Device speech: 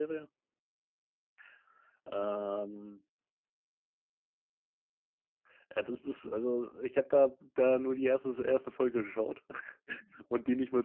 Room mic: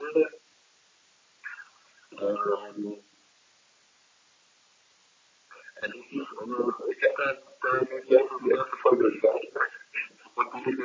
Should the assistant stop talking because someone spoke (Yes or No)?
No